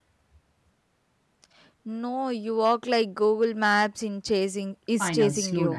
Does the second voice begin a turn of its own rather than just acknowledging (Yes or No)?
Yes